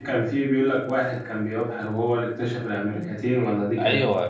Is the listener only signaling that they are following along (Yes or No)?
No